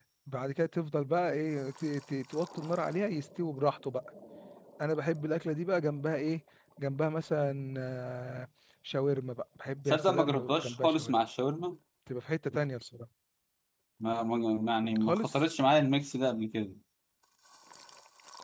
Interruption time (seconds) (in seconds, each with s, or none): 9.9 s